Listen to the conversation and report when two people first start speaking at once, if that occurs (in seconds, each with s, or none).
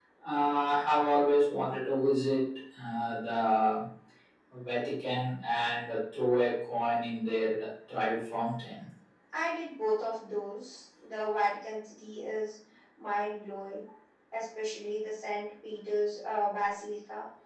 none